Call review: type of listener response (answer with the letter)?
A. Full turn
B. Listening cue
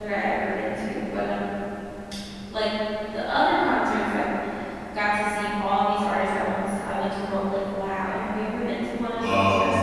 A